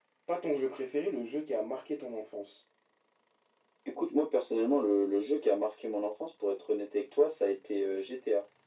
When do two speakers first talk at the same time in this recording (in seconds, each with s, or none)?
none